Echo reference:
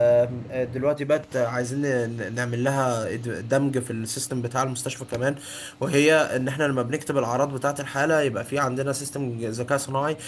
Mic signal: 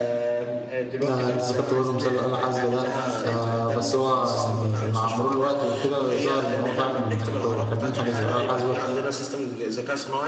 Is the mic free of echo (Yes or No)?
No